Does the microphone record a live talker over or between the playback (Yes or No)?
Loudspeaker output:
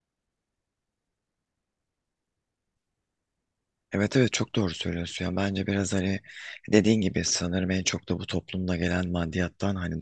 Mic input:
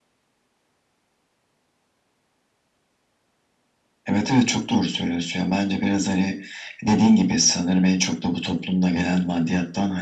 No